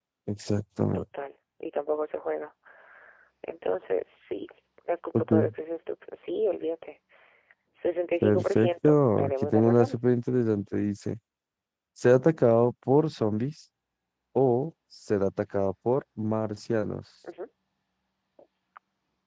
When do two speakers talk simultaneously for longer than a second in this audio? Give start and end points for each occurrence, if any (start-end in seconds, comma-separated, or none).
8.2-10.0